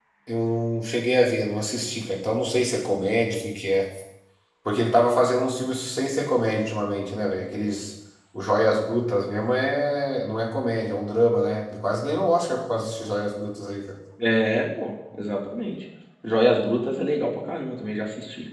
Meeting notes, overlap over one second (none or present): none